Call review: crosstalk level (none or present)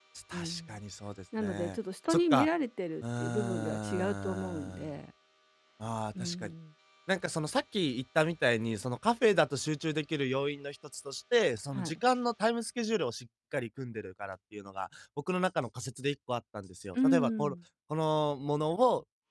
present